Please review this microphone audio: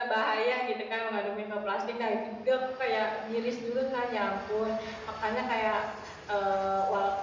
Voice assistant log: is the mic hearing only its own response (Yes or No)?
Yes